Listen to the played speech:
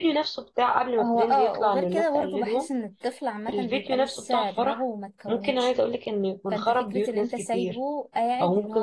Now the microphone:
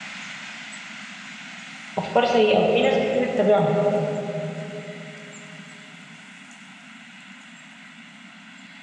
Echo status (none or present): none